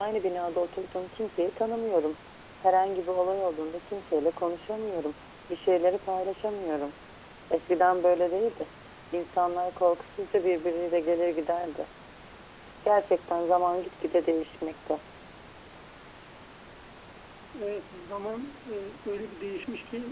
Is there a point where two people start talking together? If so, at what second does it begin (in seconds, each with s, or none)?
none